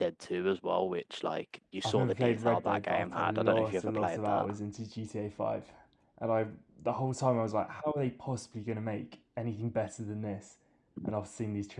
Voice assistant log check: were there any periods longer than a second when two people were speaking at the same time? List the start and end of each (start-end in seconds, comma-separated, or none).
1.8-4.5